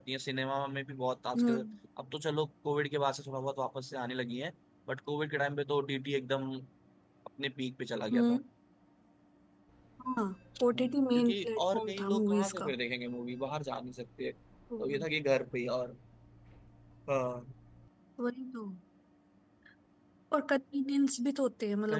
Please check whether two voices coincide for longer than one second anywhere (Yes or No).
Yes